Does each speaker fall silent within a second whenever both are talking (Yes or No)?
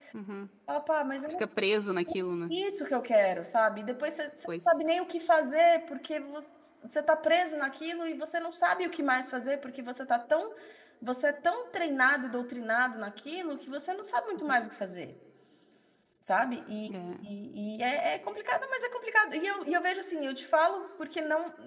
Yes